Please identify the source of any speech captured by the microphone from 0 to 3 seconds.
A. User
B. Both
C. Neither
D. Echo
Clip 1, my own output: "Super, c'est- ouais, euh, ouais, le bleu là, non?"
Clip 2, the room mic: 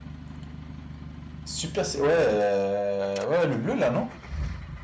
D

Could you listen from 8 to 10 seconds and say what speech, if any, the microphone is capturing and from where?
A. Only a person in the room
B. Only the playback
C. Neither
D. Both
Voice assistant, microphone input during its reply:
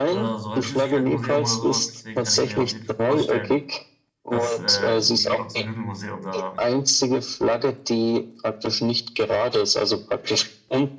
B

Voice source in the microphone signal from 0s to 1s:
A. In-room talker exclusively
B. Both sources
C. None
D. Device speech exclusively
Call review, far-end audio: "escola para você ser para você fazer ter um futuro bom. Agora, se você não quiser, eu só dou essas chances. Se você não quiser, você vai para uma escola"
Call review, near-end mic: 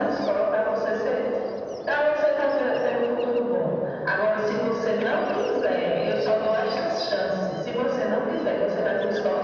D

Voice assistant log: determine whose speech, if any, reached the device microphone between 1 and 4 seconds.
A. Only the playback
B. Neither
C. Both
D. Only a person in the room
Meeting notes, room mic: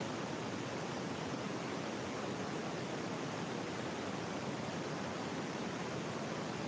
B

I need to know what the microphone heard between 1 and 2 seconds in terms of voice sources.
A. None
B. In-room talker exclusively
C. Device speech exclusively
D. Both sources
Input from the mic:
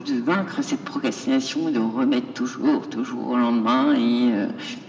C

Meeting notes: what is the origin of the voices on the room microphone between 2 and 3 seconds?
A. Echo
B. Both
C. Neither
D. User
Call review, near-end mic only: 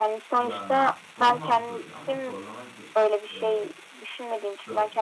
B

